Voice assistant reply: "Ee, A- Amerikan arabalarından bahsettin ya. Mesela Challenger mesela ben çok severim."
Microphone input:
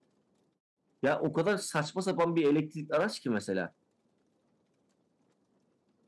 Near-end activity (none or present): present